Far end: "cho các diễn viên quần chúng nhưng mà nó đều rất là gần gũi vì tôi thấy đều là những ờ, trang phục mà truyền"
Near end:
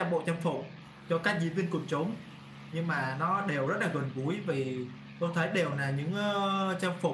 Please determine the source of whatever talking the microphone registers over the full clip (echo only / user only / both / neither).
echo only